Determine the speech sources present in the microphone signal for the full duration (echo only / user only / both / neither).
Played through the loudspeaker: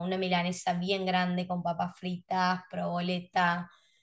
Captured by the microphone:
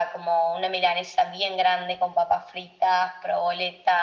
echo only